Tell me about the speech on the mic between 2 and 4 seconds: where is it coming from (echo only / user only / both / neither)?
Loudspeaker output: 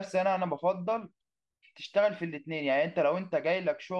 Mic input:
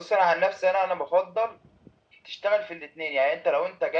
echo only